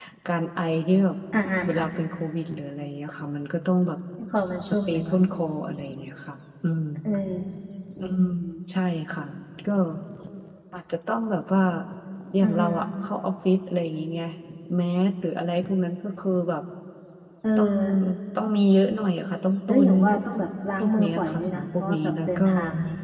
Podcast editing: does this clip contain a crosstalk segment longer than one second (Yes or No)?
Yes